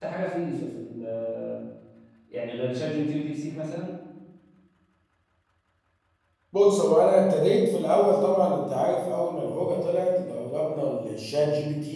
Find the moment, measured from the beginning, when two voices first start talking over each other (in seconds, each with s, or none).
none